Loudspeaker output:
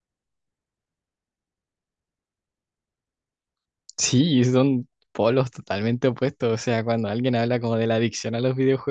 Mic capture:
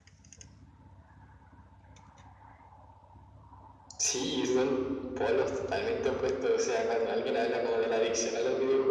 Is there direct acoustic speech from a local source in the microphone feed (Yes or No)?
No